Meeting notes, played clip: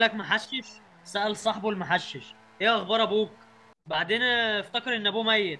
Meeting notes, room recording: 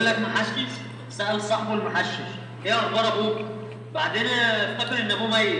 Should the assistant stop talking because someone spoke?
No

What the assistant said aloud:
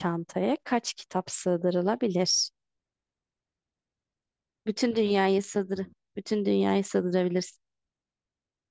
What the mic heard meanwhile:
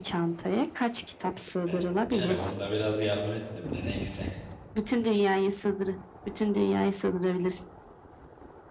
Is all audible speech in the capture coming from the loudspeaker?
No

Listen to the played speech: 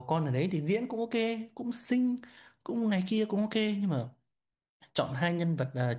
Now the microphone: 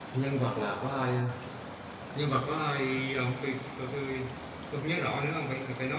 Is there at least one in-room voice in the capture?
Yes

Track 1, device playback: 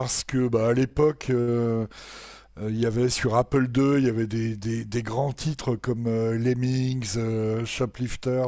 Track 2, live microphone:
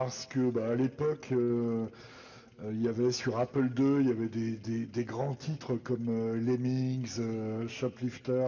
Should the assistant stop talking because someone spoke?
No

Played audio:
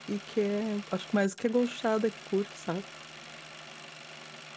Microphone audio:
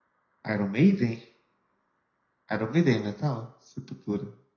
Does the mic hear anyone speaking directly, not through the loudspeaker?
Yes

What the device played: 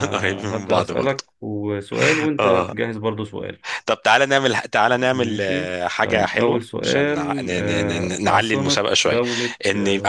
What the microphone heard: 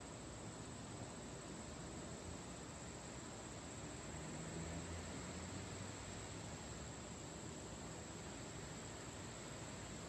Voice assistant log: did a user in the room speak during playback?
No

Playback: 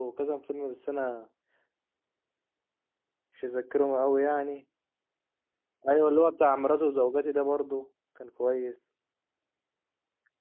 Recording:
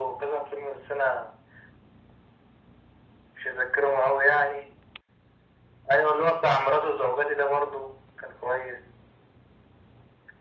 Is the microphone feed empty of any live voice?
Yes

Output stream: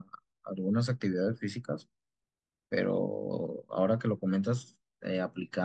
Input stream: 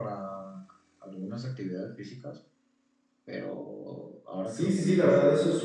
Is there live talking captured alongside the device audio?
Yes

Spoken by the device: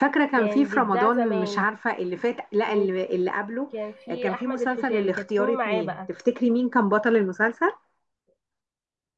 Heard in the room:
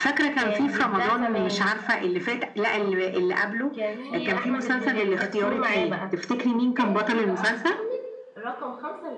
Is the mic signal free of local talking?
No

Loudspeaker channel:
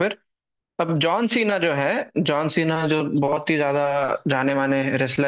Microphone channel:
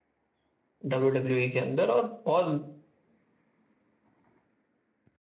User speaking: Yes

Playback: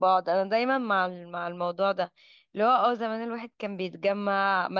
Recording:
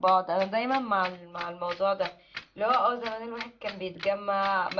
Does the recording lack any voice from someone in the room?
Yes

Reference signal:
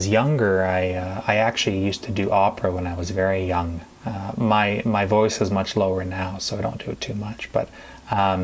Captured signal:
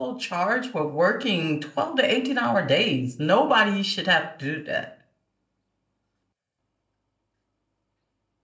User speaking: Yes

